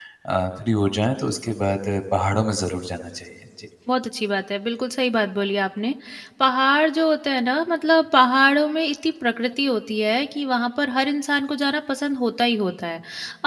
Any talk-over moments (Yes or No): No